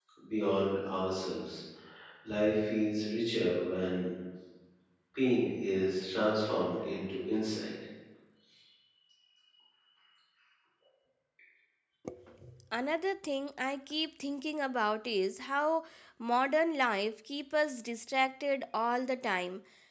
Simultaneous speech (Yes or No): No